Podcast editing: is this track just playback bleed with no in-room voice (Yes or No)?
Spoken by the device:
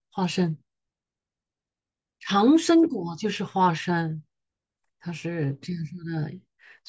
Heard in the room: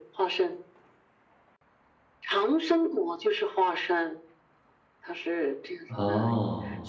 No